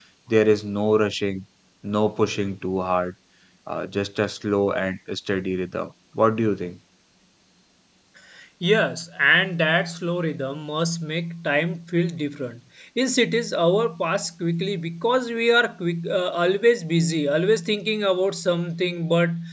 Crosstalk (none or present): none